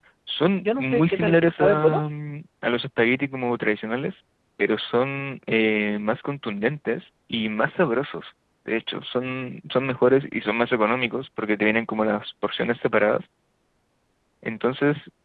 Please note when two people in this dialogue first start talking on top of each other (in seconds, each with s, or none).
0.6 s